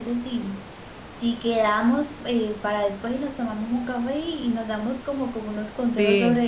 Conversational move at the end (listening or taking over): listening